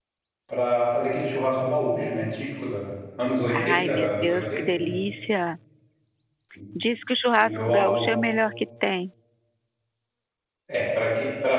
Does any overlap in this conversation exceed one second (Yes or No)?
Yes